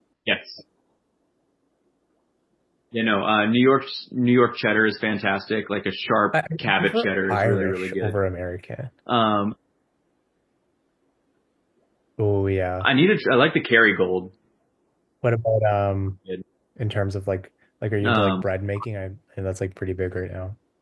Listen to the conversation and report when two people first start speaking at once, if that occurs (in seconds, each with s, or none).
6.3 s